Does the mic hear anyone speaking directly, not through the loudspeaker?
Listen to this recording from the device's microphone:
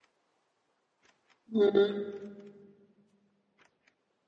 Yes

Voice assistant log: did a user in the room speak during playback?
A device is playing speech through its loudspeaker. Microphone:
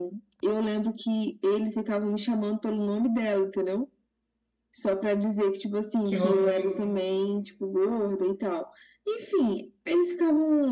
Yes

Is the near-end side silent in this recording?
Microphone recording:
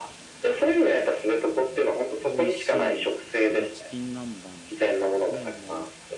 No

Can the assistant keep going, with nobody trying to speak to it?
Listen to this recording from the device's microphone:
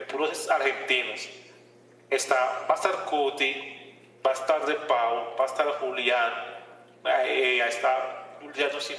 Yes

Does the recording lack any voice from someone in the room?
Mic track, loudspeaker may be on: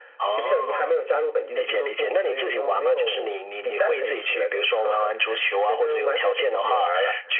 Yes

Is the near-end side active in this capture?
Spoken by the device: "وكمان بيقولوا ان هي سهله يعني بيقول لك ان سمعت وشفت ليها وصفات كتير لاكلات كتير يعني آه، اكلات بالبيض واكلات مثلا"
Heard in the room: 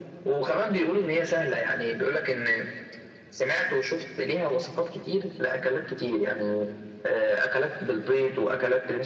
No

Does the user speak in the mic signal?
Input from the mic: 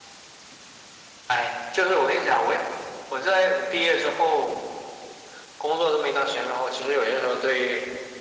No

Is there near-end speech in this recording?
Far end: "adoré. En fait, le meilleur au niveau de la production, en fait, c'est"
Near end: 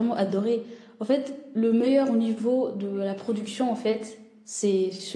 No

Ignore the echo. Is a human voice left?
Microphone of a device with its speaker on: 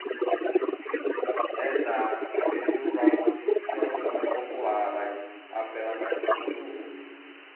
Yes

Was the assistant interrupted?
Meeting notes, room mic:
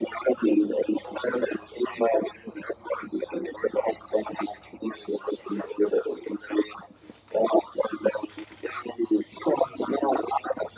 No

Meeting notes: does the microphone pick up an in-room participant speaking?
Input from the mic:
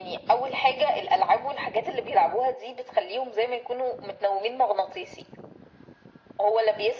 No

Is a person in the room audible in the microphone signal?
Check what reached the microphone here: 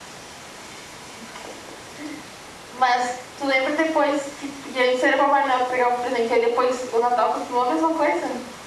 No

